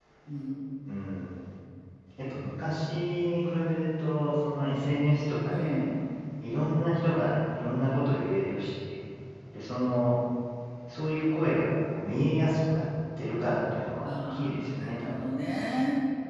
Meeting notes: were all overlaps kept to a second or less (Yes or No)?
No